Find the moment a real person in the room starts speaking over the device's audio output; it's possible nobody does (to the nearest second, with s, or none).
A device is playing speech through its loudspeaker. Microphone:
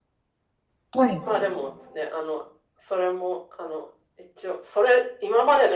1 s